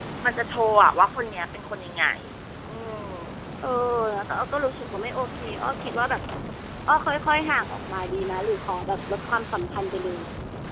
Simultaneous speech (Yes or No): No